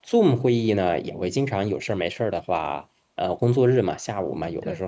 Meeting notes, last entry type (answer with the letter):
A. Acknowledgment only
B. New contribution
A